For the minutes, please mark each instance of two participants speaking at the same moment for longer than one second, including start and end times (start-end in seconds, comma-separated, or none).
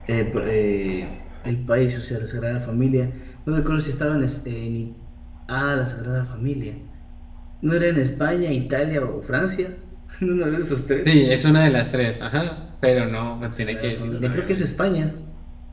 13.4-14.6